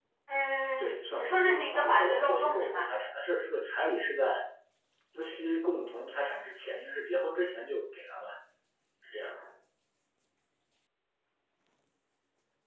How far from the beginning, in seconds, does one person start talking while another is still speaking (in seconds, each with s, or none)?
0.8 s